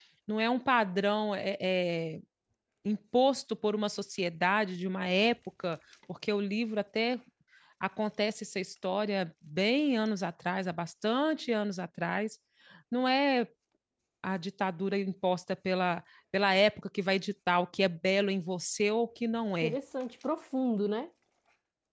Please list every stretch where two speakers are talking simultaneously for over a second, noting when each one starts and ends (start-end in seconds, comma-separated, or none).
none